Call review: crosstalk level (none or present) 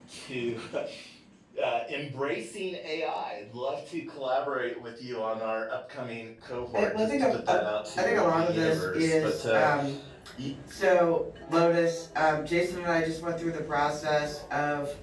present